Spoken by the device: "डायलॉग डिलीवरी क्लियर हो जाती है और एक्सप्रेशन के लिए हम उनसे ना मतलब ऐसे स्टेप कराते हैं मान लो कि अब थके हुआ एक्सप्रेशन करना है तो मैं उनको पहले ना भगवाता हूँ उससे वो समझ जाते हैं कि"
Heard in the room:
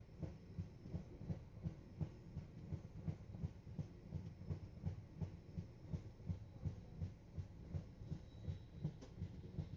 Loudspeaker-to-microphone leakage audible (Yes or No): No